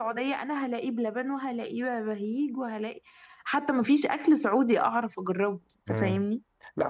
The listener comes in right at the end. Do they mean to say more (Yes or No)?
Yes